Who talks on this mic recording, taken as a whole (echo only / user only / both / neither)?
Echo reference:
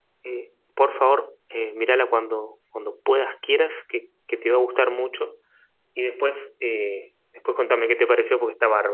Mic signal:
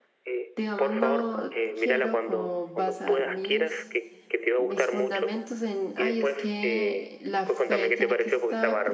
both